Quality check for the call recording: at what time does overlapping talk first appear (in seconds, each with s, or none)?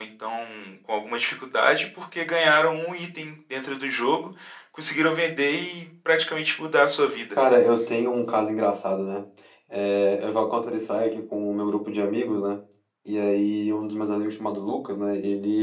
none